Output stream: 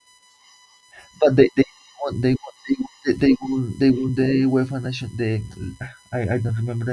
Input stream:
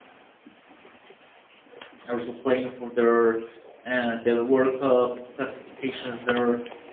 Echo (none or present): none